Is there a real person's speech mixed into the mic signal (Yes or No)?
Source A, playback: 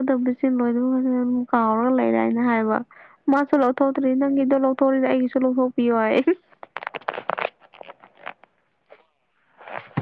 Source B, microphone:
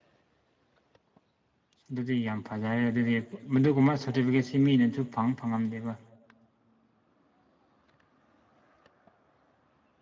Yes